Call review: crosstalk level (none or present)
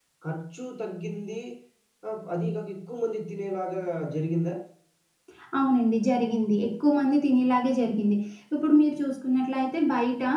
none